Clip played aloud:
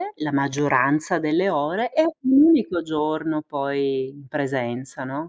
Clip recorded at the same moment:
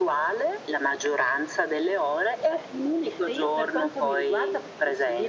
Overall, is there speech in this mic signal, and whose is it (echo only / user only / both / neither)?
both